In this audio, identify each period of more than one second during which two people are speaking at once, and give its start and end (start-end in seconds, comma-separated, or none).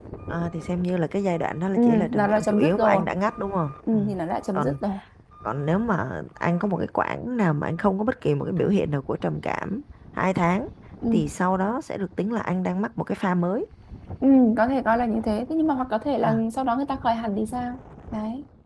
1.7-3.0